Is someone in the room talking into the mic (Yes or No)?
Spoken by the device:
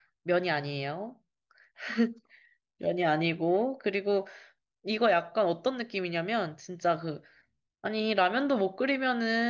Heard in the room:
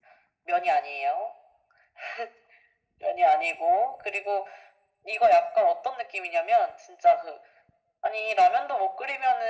No